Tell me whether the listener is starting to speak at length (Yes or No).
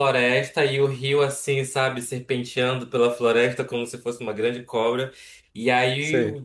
No